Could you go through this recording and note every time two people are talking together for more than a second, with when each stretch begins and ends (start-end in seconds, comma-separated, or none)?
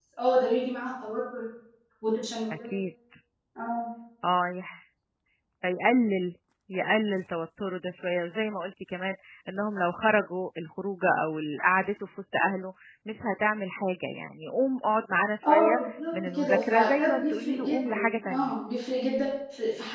15.4-18.5